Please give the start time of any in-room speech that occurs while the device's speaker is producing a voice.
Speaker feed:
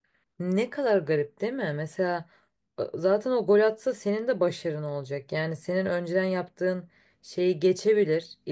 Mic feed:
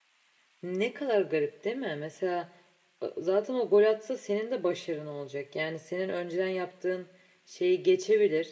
none

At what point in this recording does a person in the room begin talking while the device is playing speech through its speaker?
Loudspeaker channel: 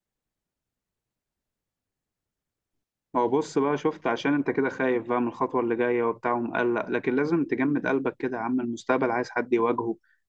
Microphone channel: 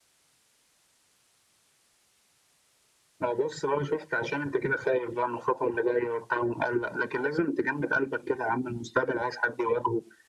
none

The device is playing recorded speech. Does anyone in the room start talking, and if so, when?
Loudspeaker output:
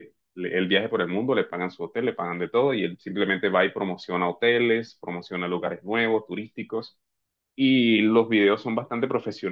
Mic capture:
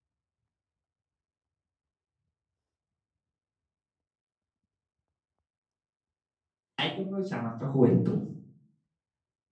6.8 s

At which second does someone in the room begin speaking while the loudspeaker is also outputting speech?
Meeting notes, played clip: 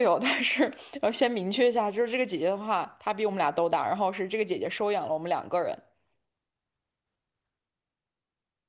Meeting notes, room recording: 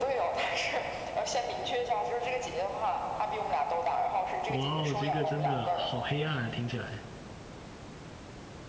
4.4 s

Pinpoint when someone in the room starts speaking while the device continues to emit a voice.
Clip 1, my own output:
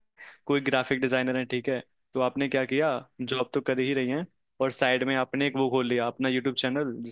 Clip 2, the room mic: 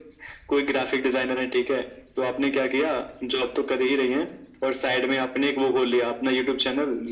none

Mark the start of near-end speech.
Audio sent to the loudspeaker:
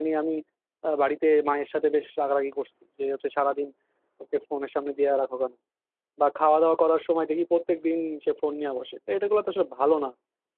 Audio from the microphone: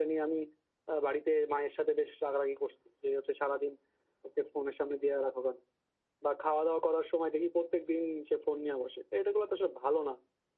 none

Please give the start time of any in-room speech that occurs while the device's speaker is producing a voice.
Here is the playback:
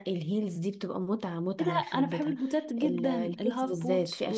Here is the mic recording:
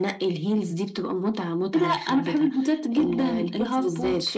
none

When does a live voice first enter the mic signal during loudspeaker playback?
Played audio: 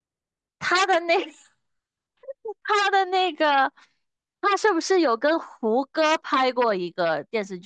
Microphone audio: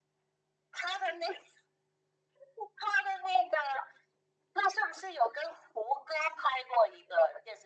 none

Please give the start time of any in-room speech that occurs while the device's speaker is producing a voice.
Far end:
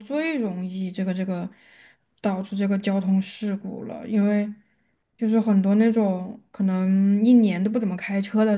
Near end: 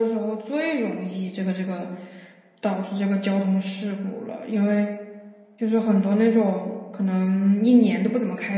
none

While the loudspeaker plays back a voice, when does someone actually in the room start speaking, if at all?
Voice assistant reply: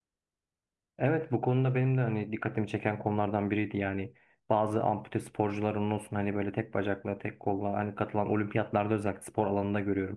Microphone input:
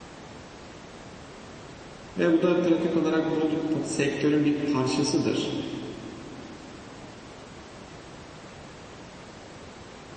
2.2 s

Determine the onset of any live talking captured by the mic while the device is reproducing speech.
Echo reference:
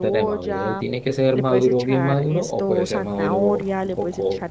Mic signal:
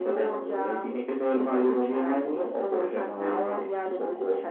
none

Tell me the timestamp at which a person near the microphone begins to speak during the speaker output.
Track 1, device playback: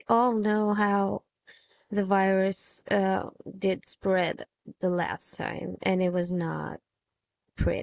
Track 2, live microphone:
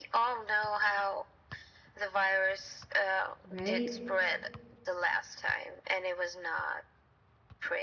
3.5 s

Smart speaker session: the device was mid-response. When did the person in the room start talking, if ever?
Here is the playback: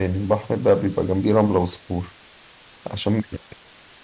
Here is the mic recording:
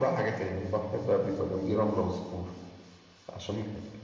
none

